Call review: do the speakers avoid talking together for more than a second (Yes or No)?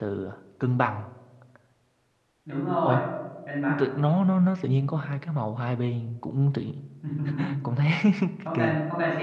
Yes